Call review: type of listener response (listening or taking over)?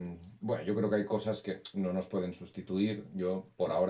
listening